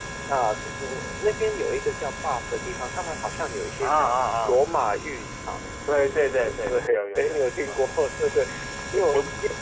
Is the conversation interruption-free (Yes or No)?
No